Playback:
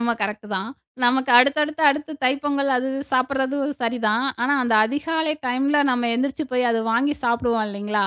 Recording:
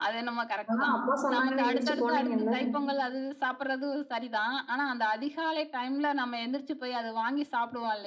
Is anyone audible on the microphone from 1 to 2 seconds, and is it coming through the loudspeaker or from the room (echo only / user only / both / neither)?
both